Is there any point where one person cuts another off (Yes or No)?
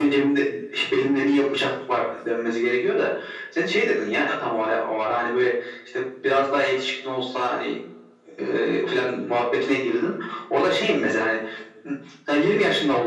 No